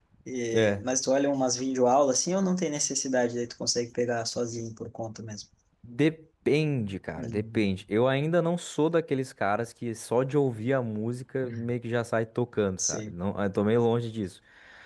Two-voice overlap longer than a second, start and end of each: none

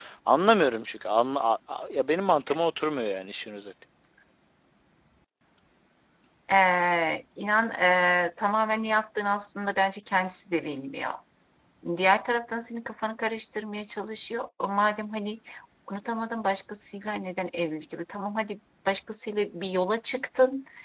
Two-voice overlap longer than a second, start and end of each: none

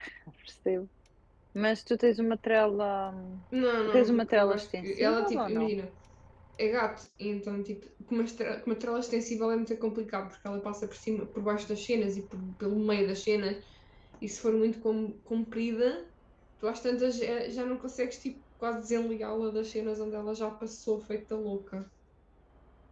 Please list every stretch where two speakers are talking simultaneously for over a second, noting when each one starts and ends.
3.9-5.7

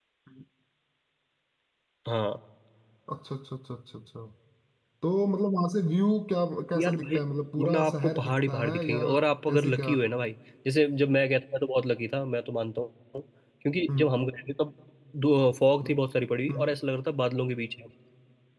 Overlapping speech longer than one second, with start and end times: 7.6-9.0

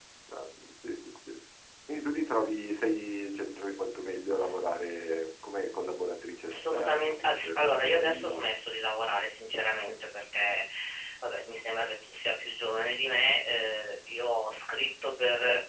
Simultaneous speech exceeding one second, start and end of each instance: 6.5-8.4

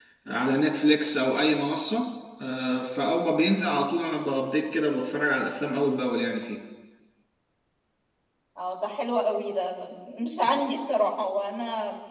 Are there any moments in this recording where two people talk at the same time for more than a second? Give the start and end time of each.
none

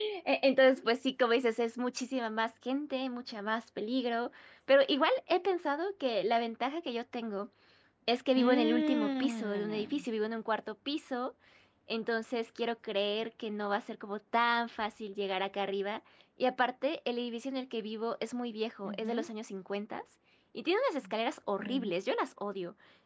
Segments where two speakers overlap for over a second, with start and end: 8.4-10.1

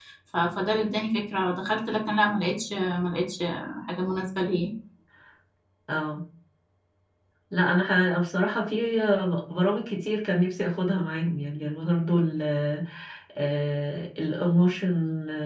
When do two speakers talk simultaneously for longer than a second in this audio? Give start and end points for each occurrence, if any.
none

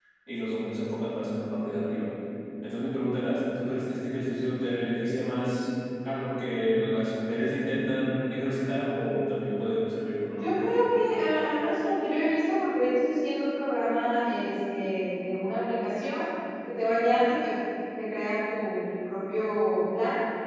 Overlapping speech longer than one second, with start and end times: none

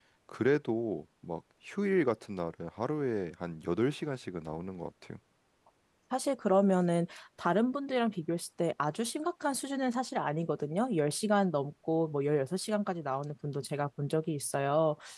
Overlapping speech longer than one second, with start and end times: none

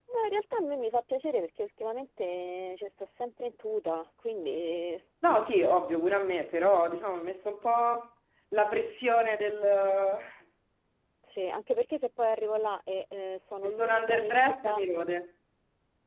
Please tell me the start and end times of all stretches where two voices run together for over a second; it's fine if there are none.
13.6-14.8

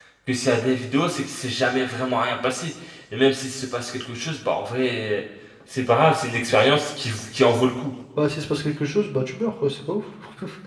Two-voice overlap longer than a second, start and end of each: none

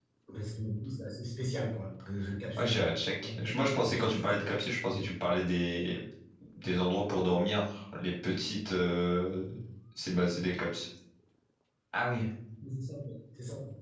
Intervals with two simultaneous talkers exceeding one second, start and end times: 2.6-4.5

